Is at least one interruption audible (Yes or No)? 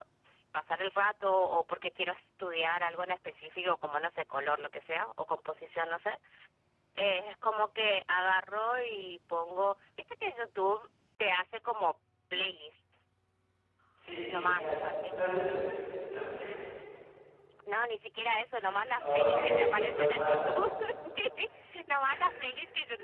Yes